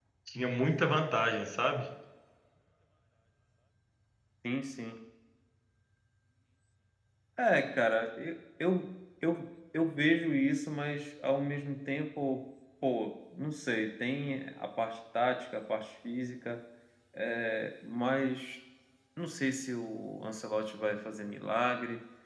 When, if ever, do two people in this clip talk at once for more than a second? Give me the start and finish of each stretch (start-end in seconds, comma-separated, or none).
none